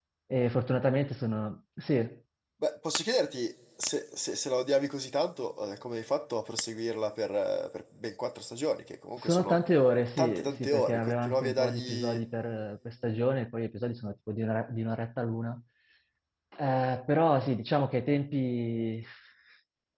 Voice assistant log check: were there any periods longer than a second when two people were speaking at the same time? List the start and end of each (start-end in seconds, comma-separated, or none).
10.2-12.2